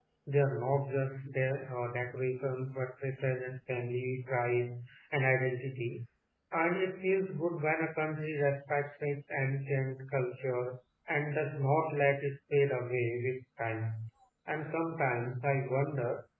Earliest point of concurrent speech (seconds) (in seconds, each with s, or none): none